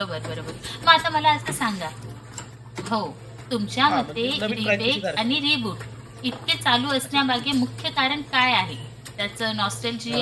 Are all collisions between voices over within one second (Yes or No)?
No